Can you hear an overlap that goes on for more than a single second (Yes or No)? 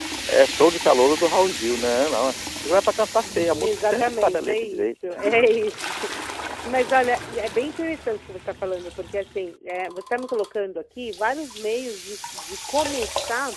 Yes